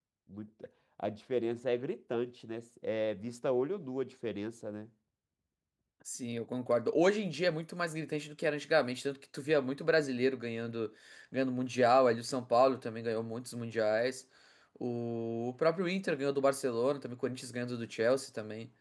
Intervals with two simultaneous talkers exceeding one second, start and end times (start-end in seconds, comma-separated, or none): none